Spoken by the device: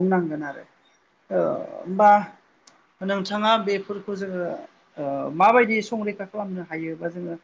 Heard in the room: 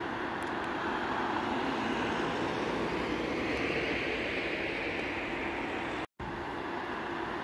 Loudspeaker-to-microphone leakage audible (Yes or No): No